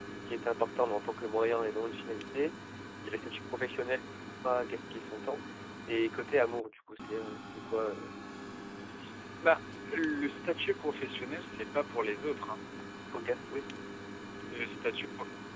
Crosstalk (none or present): none